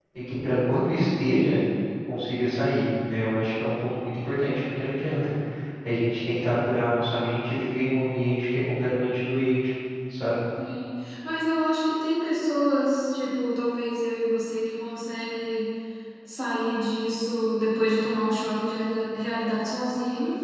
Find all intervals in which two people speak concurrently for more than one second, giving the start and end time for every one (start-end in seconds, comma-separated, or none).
none